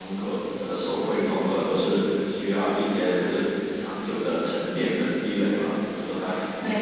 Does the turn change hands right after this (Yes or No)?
No